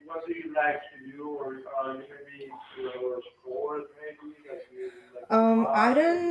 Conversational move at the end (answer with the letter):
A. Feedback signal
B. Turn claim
B